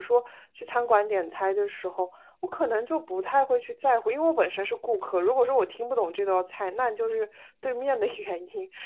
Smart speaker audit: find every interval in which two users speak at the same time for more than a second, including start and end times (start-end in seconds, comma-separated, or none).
none